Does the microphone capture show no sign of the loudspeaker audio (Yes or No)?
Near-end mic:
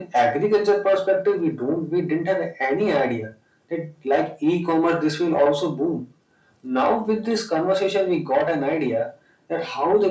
No